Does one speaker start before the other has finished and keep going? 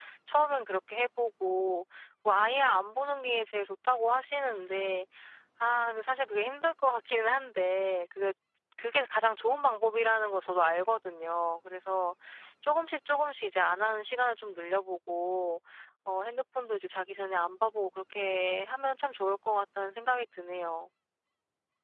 No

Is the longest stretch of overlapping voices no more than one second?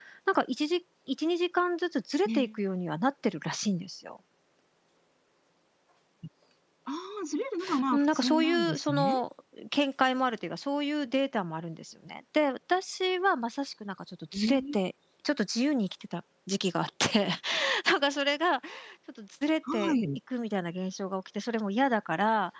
No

